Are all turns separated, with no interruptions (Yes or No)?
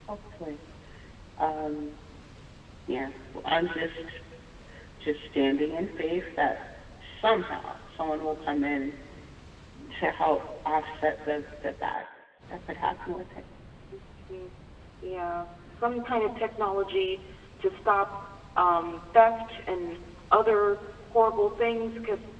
Yes